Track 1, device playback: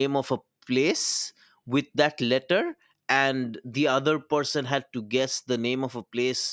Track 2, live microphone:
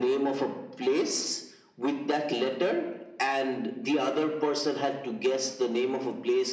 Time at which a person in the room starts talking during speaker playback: none

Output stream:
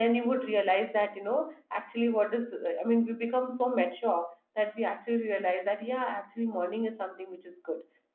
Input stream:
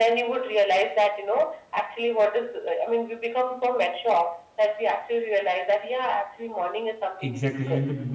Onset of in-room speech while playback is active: 7 s

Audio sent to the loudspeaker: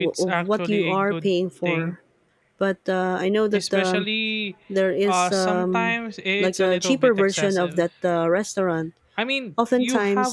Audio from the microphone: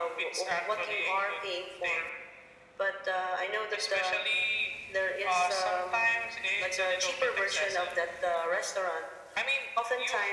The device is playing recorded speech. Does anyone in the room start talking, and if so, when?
none

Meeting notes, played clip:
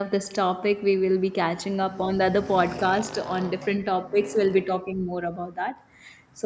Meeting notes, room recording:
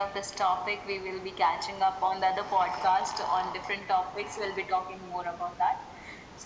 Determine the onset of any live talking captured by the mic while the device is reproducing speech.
none

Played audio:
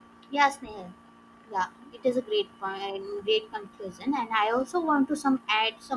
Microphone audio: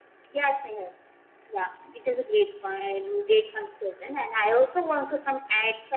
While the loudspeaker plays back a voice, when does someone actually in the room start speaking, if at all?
none

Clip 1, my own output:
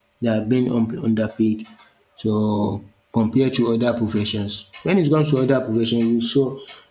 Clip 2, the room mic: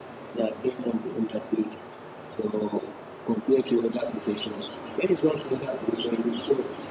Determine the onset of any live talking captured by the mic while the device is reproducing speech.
none

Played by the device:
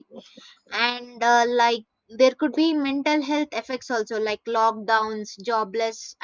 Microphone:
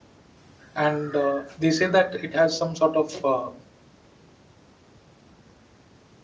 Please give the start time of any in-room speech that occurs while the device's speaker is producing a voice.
1 s

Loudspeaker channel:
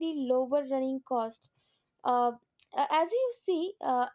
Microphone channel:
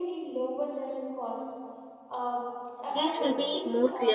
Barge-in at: 3 s

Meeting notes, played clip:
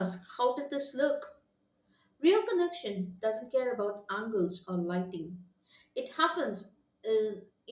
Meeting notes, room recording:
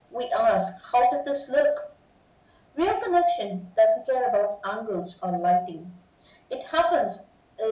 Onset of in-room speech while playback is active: none

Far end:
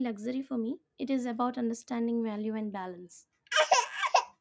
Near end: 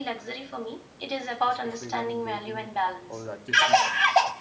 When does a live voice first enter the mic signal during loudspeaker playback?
1 s

